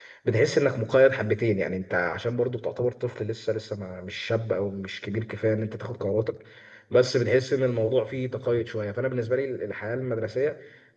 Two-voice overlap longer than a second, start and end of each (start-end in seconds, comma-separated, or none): none